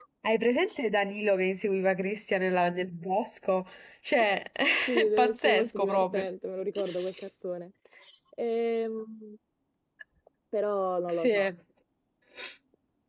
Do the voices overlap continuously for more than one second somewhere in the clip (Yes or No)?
Yes